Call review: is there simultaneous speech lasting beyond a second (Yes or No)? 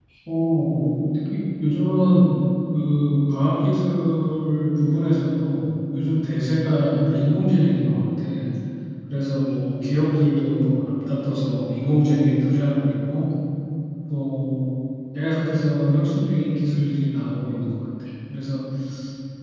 No